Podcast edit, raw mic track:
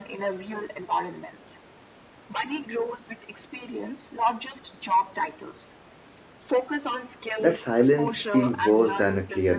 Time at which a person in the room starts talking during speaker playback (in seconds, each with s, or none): 7.4 s